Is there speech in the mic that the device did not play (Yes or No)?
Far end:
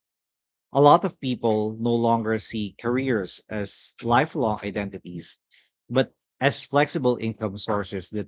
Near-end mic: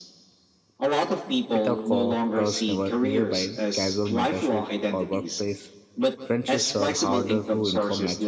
Yes